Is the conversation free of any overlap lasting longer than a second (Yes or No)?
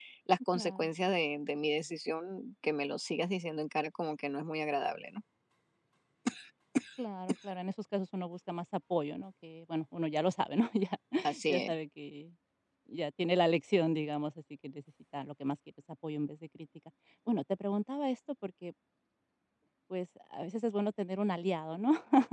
Yes